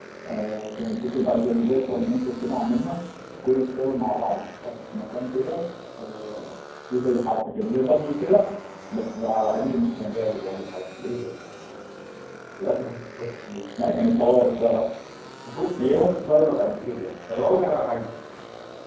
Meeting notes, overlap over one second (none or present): none